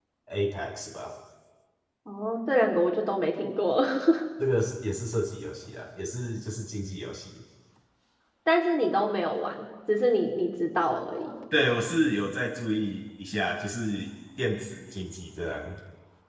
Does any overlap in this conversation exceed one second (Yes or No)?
No